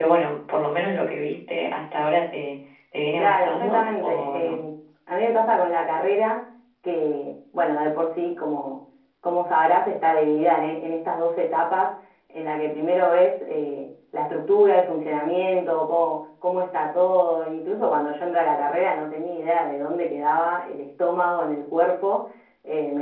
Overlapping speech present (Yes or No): Yes